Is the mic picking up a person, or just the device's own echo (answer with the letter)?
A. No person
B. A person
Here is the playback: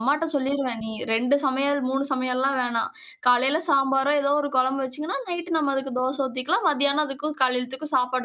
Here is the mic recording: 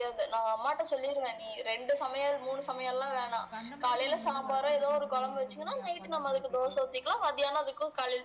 B